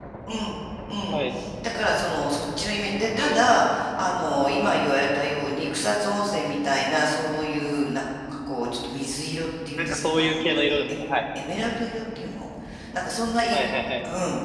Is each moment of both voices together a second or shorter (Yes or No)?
No